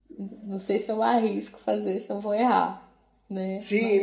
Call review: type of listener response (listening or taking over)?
taking over